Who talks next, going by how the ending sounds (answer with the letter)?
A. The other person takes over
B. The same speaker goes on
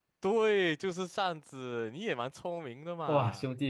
A